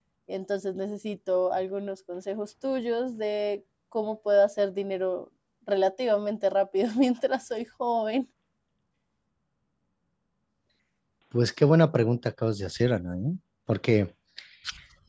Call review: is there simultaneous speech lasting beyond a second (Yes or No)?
No